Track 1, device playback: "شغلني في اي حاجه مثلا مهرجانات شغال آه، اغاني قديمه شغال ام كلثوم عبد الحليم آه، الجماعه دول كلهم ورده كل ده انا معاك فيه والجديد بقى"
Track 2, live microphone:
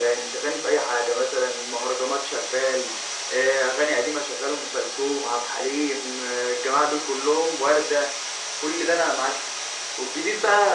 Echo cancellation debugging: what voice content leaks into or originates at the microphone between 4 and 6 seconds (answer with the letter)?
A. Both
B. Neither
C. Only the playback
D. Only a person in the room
C